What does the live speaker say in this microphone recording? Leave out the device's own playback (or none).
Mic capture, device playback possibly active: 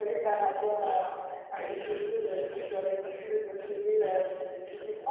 none